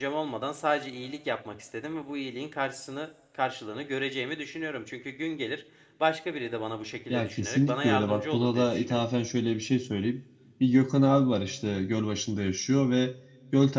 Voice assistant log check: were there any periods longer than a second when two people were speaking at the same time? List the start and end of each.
7.1-9.0

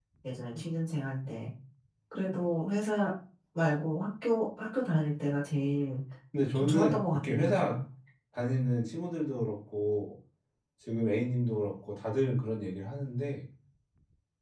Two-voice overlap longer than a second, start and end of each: 6.5-7.8

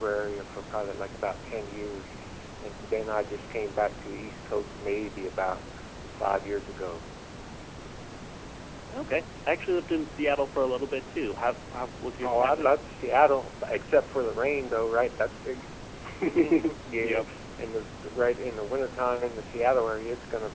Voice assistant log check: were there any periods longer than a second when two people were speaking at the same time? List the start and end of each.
none

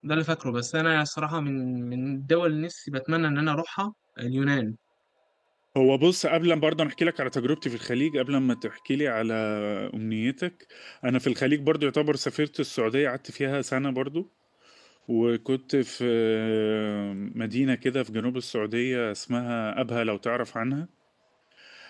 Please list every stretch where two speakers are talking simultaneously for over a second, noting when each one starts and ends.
none

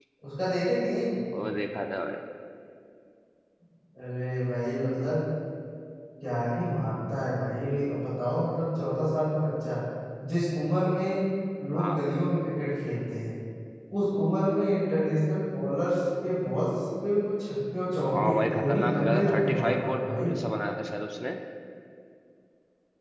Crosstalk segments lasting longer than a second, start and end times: 18.2-20.3

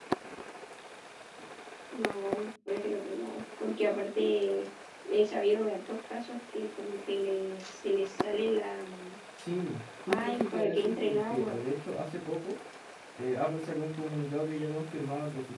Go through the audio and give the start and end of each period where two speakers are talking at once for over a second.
10.1-11.6

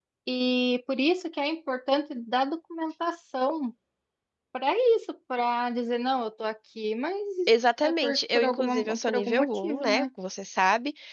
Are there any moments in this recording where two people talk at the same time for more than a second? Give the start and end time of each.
7.8-10.1

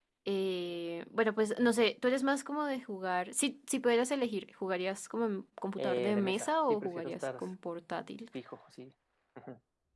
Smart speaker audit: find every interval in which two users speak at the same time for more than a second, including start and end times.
5.8-7.4

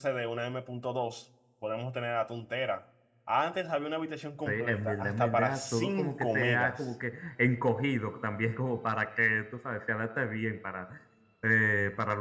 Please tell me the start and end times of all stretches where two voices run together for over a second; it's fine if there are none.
4.5-6.8

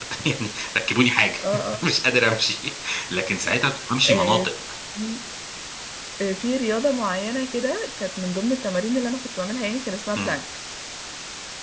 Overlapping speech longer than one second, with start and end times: none

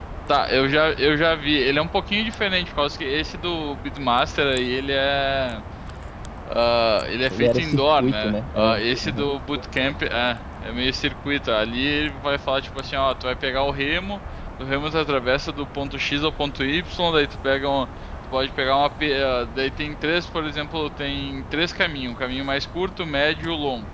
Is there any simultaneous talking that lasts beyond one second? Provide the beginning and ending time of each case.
7.3-9.3

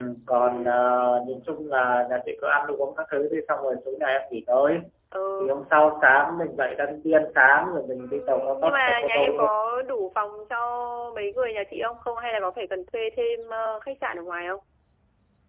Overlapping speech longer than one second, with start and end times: 8.0-9.5

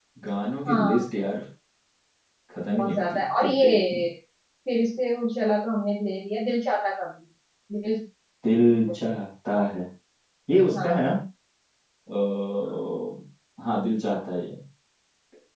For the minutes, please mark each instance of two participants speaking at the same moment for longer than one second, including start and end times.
2.7-4.0

